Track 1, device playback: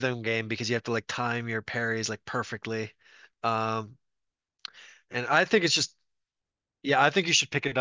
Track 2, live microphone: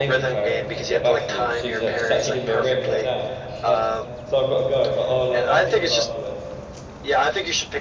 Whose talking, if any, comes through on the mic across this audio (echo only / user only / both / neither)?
both